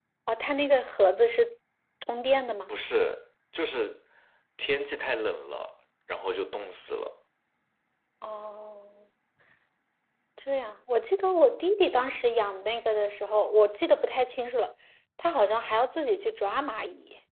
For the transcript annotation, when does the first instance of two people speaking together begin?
none

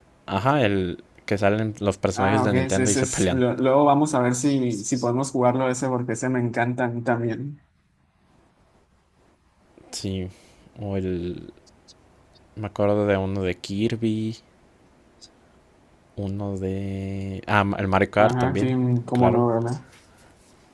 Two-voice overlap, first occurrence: 2.2 s

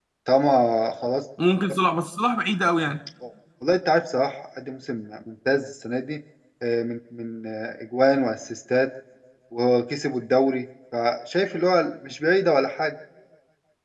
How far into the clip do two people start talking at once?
none

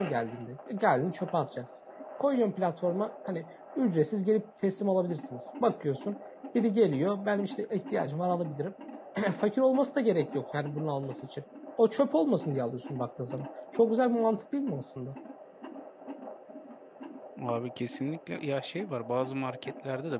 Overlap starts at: none

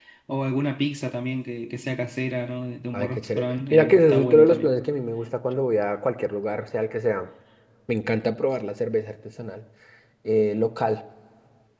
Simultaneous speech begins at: 2.9 s

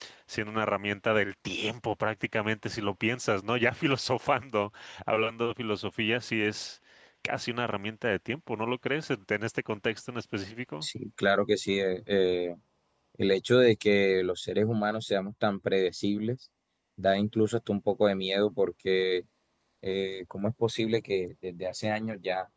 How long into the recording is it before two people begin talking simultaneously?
none

